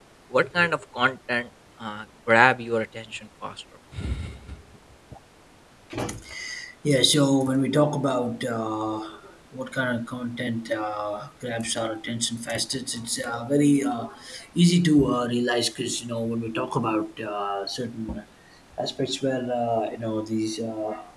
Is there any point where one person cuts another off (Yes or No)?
No